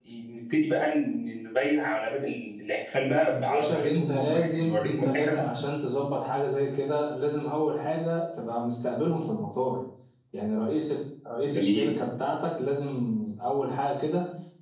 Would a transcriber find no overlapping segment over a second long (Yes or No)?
No